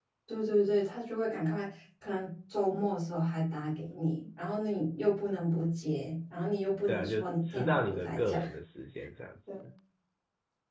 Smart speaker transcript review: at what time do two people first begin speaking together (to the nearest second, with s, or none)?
7 s